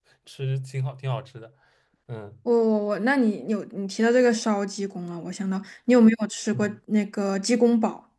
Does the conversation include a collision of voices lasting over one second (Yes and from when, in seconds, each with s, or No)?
No